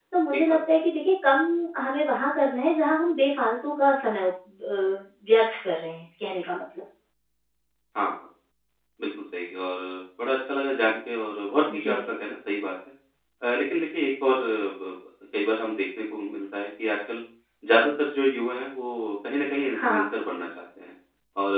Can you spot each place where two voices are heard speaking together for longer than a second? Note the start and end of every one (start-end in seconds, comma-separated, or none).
none